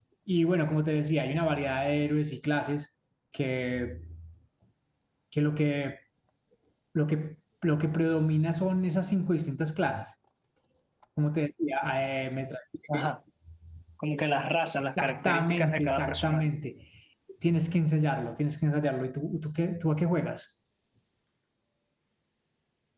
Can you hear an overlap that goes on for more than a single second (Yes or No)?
Yes